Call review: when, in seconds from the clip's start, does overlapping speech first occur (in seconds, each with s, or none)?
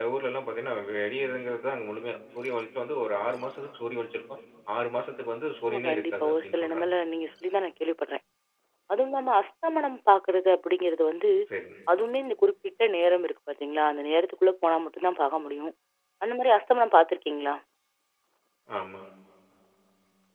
5.6 s